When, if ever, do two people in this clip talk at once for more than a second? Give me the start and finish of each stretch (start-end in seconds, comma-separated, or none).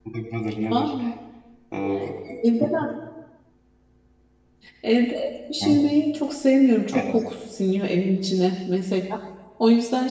none